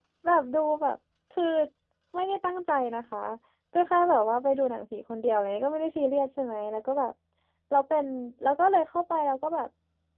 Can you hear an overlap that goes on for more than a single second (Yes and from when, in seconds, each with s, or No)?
No